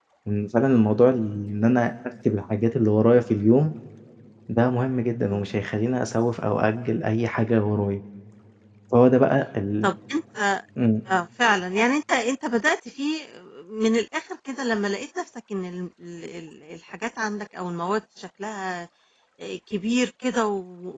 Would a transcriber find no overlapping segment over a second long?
Yes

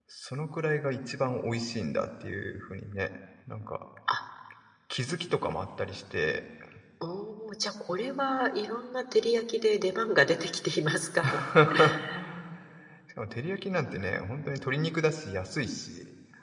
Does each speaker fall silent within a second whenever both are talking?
Yes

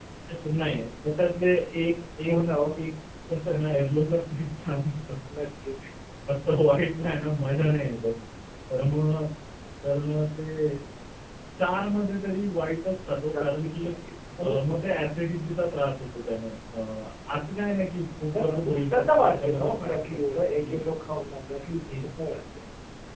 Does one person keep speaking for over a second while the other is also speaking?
Yes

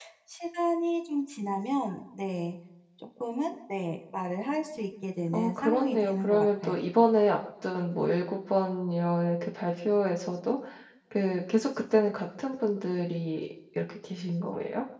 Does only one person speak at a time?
No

